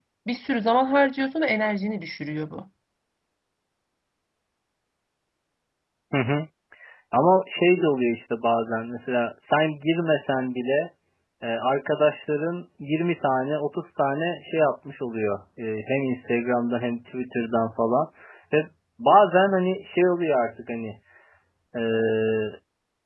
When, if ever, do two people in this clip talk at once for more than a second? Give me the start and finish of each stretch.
none

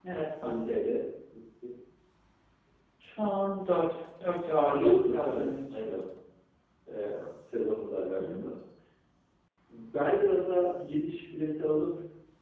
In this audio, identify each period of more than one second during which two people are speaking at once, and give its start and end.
4.6-5.9

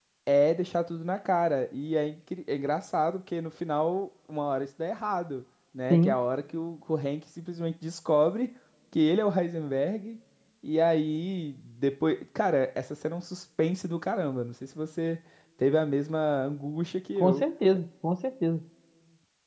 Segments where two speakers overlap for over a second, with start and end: none

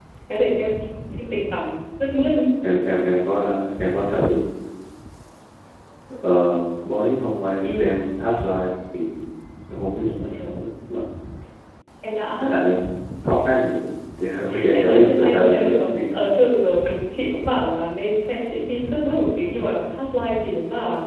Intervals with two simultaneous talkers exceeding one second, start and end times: 14.7-16.2

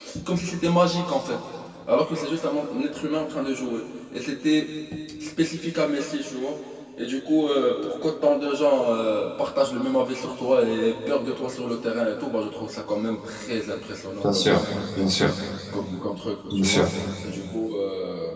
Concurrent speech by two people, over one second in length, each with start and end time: none

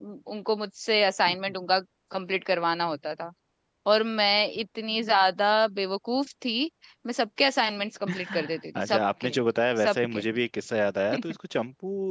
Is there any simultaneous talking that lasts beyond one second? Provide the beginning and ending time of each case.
8.1-9.3

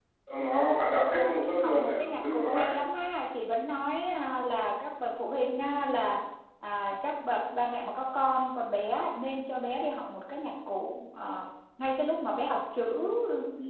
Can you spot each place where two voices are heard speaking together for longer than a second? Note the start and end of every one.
1.1-2.8

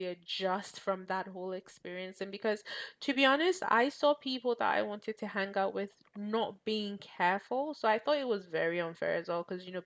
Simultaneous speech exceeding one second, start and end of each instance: none

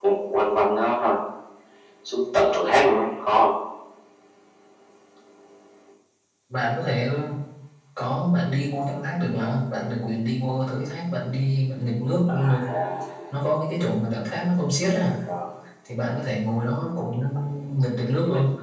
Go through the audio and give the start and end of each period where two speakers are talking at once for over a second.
none

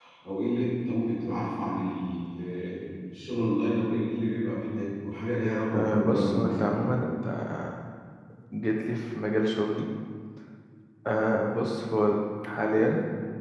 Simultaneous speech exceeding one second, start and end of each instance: 5.7-7.0

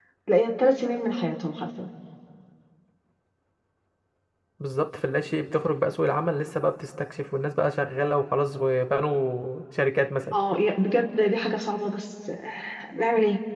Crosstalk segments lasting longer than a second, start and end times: none

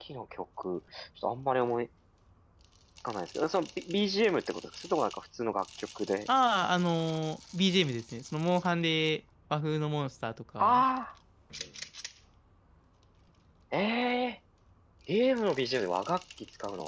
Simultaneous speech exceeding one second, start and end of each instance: none

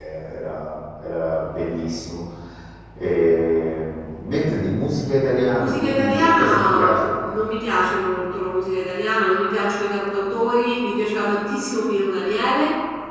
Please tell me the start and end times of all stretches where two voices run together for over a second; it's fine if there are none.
5.5-7.1

